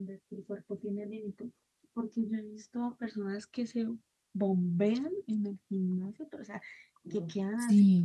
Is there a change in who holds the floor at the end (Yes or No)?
No